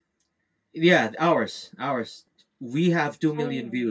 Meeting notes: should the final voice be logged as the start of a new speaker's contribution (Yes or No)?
Yes